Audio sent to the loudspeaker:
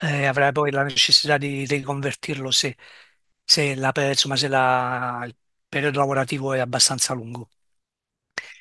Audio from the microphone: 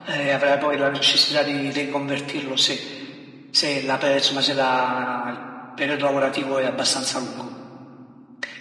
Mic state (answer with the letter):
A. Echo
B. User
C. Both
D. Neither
A